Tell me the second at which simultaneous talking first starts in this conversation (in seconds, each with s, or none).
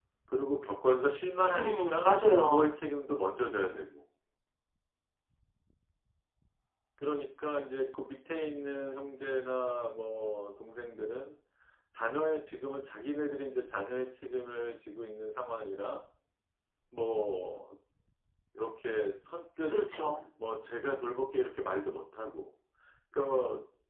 1.5 s